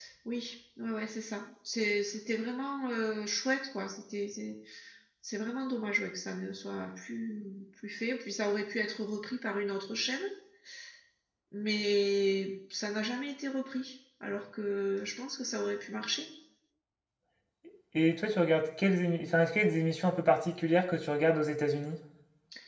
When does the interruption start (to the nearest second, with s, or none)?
none